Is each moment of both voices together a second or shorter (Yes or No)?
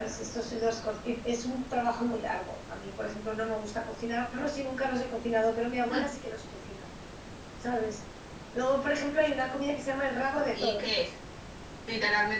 Yes